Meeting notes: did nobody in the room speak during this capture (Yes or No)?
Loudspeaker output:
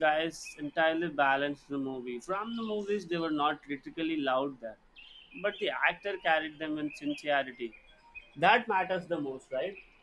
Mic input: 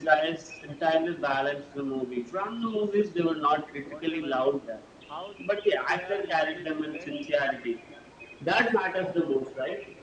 No